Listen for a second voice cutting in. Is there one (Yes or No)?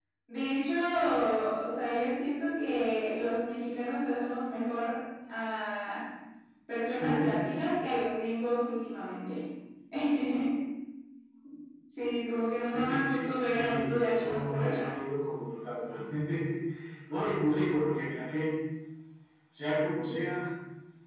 Yes